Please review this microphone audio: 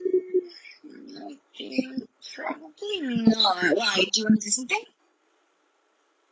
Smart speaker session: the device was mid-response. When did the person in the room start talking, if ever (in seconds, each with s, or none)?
none